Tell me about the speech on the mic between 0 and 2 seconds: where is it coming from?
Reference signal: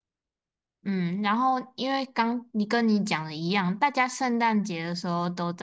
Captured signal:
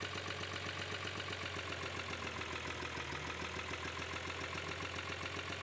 neither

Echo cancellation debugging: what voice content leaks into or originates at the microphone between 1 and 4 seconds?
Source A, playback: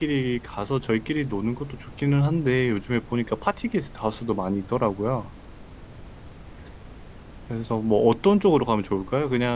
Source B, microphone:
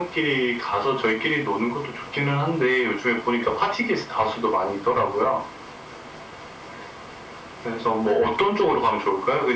echo only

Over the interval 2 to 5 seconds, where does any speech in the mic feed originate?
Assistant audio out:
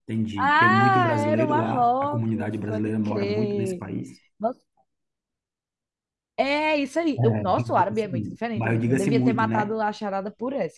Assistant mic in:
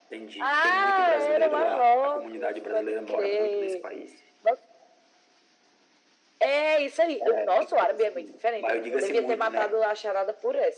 echo only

